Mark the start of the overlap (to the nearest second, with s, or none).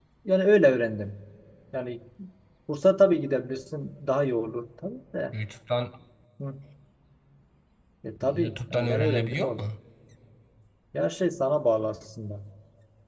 8 s